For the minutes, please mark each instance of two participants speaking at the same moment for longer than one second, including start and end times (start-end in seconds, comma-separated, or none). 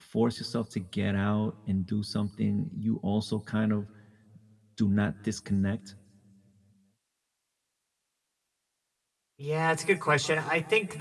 none